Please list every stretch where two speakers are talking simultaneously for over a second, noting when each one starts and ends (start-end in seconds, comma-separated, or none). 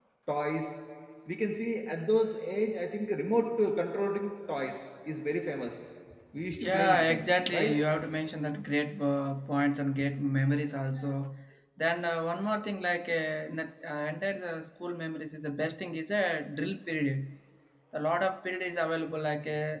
6.6-7.8